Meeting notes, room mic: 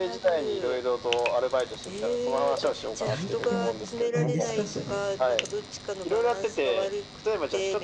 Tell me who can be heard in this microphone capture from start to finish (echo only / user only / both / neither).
both